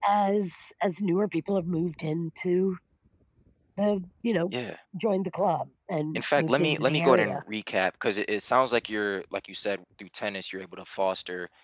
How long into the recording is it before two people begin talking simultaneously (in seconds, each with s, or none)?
6.2 s